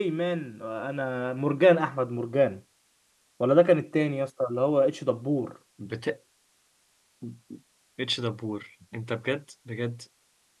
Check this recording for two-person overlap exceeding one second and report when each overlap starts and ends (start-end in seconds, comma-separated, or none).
none